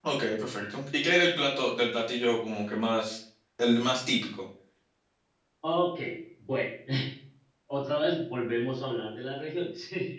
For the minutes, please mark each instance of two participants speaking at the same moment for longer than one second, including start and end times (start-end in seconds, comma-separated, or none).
none